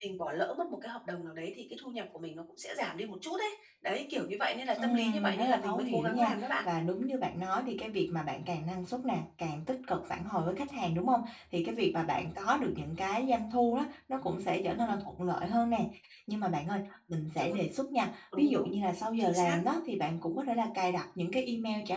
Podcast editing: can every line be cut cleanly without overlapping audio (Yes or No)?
No